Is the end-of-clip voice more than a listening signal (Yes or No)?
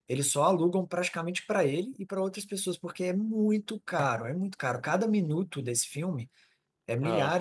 No